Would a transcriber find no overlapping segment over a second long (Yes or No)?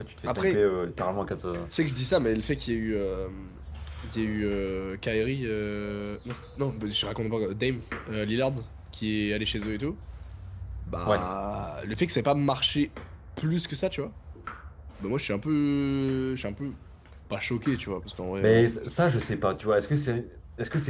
Yes